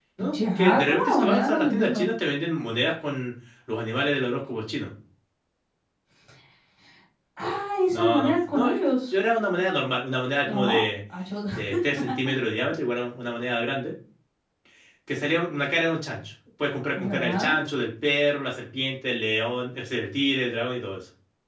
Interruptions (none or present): present